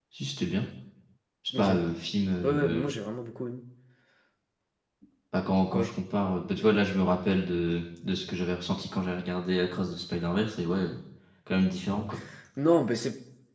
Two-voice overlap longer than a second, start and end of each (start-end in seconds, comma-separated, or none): none